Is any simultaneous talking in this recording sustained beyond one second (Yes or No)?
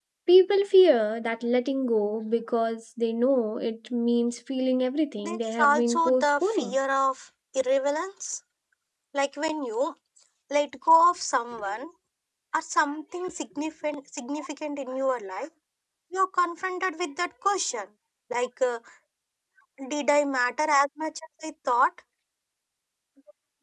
Yes